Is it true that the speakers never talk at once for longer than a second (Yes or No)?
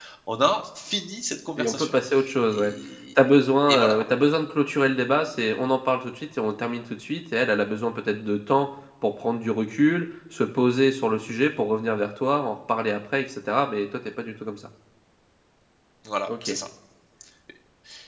Yes